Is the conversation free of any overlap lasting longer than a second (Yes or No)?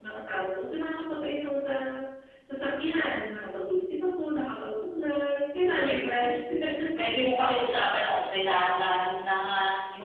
Yes